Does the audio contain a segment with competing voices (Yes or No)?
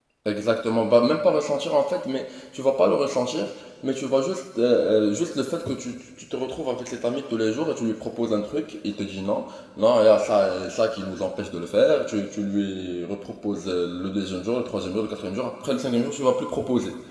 No